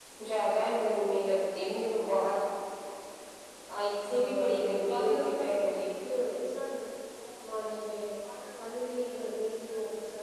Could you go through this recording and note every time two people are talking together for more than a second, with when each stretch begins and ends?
4.1-5.7

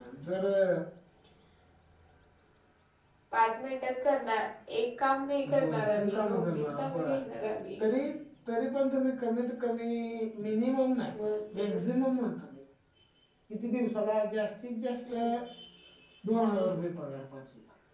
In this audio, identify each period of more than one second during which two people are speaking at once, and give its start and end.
5.6-7.2

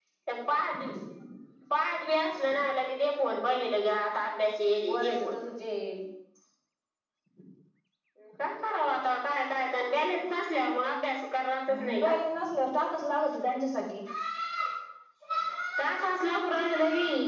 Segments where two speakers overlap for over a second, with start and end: none

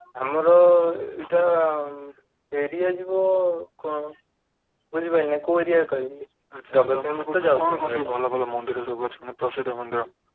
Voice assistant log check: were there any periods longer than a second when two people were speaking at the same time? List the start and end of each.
6.8-8.2

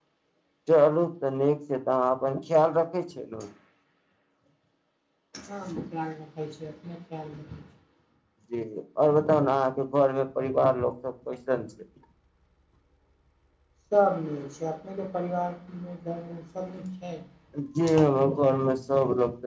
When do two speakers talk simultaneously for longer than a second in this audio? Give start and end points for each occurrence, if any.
none

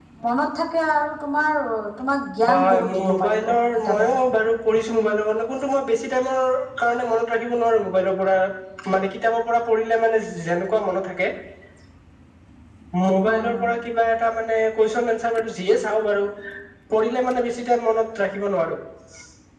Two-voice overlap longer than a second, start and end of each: 2.4-4.0

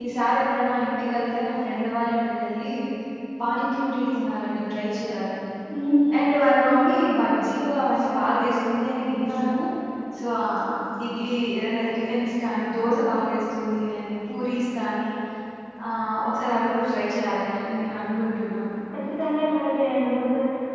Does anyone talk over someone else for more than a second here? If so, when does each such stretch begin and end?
none

